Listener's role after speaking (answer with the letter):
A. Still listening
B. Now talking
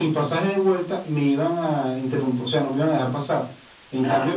A